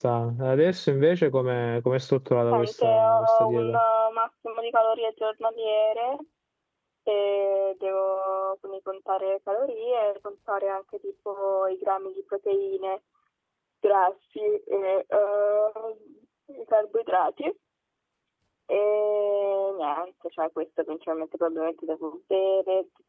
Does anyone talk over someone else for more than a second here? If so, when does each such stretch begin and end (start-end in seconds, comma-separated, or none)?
2.5-3.8